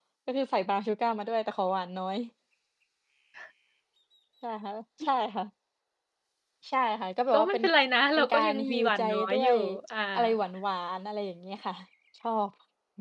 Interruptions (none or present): present